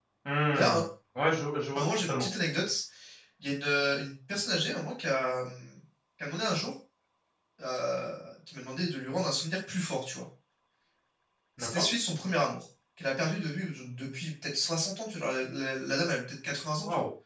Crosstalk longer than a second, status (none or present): none